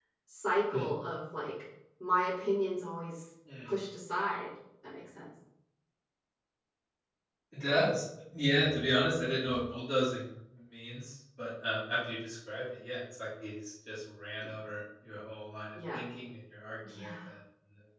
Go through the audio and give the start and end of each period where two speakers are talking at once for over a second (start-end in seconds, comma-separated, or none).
none